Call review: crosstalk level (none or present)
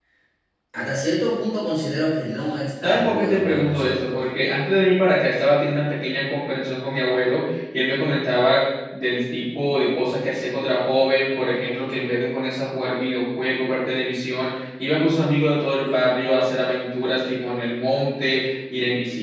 present